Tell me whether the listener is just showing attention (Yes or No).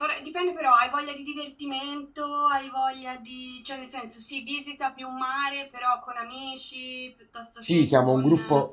No